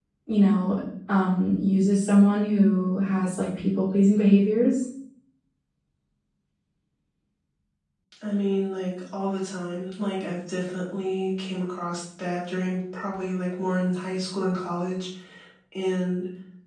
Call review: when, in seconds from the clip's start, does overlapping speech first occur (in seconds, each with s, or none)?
none